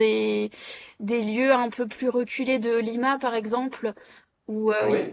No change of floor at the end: Yes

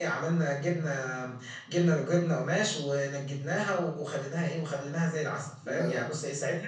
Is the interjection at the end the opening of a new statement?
No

